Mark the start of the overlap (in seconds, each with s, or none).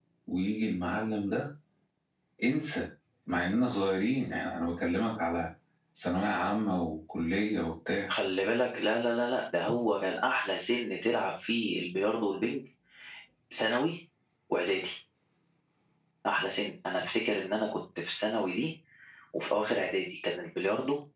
none